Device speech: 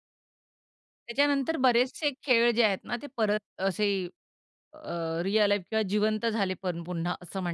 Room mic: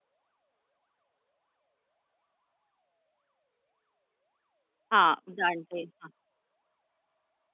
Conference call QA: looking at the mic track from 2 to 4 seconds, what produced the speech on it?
neither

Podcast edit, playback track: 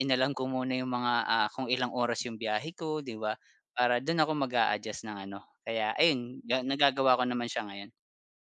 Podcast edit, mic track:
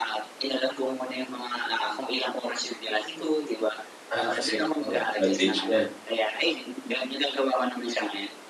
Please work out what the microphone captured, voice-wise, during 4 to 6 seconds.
both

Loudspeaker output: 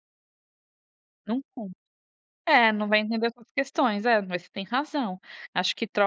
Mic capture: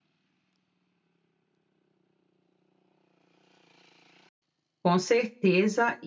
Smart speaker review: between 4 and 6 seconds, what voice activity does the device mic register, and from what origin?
user only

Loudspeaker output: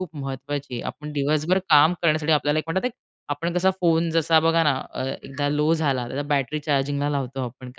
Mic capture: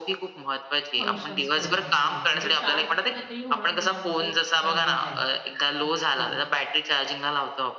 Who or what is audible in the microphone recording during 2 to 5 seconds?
both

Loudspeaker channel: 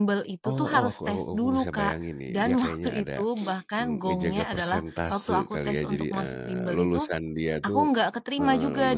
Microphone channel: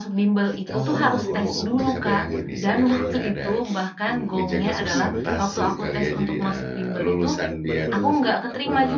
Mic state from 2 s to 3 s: both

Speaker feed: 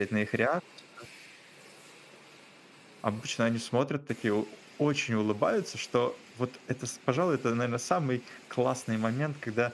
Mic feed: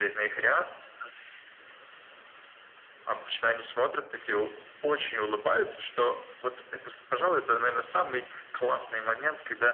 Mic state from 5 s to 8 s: echo only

